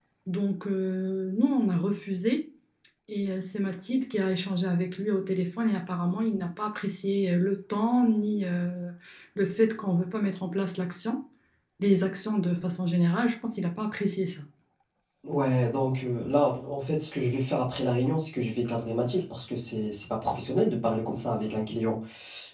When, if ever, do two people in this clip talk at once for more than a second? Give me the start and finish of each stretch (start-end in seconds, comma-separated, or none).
none